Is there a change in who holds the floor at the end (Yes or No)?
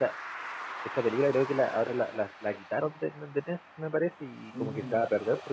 No